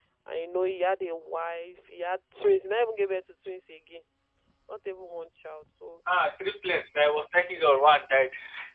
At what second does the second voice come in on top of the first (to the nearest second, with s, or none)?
none